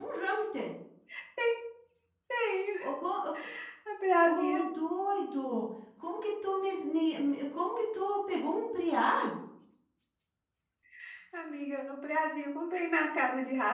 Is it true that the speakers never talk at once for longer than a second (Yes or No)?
Yes